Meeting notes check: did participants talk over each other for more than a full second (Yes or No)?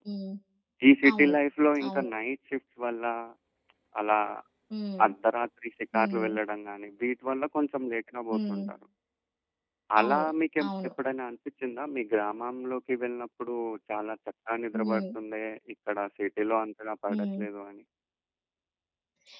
No